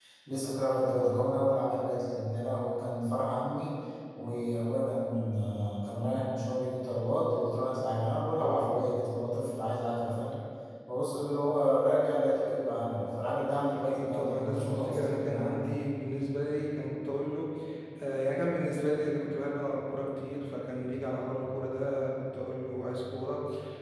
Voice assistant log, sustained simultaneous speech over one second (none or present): present